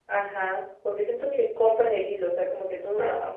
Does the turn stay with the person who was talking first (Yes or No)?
Yes